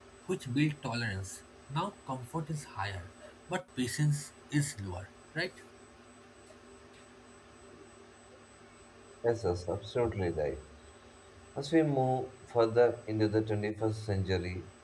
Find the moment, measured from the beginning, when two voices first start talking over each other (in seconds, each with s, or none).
none